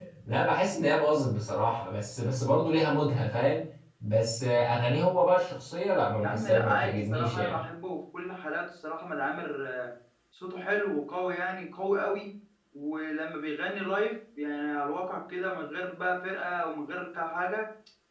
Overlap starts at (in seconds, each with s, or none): 6.2 s